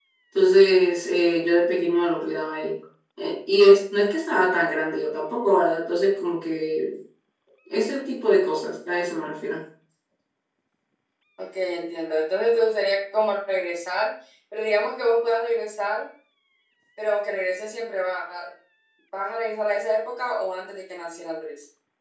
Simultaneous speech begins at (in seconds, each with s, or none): none